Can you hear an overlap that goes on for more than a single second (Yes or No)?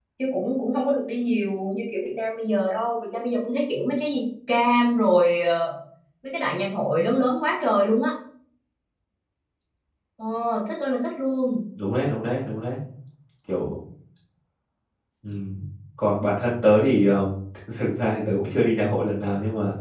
No